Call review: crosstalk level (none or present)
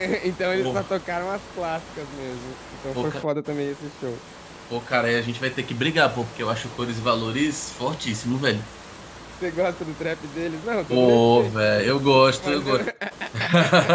present